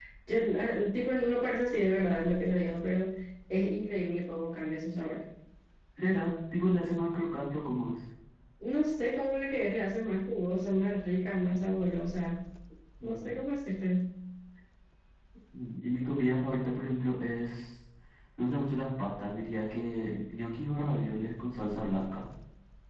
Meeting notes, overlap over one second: none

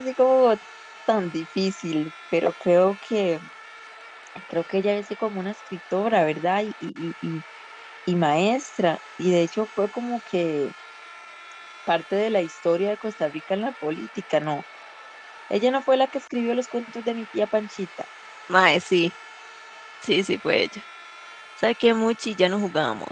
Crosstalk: none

